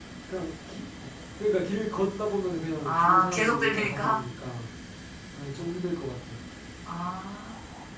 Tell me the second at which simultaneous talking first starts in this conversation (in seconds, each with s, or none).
2.9 s